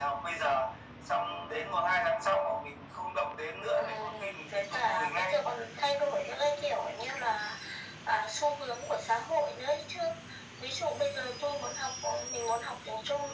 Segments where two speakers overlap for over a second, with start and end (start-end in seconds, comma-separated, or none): 3.7-5.4